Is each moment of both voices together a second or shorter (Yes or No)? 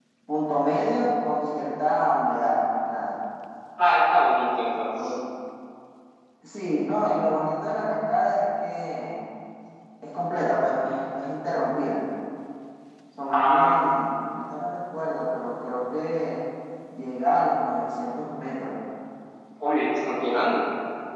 Yes